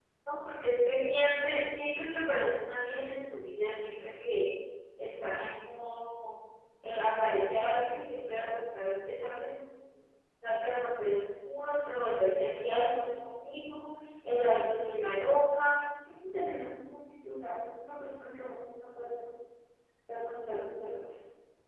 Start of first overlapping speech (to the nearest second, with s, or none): none